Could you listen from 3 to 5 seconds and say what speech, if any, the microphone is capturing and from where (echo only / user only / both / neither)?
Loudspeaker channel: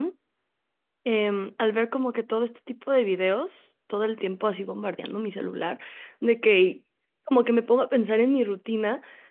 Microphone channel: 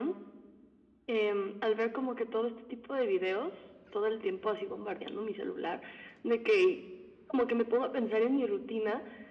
echo only